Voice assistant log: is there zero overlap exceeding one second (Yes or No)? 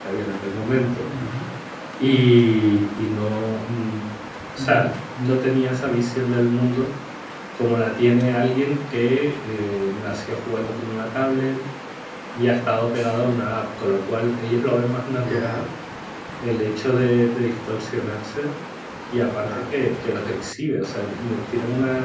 Yes